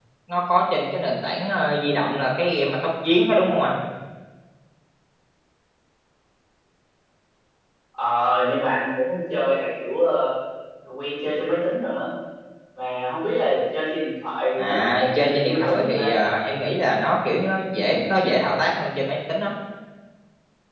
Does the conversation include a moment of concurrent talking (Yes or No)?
Yes